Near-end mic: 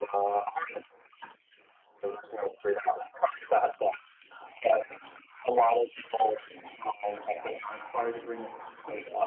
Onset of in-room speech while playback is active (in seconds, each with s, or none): 7.3 s